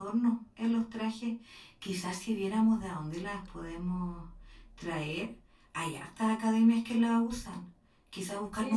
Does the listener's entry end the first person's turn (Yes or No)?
Yes